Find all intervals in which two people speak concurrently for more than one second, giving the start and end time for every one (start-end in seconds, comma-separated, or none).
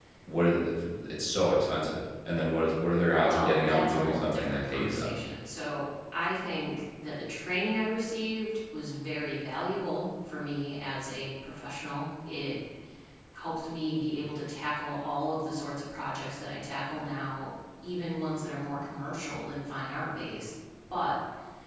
3.2-5.2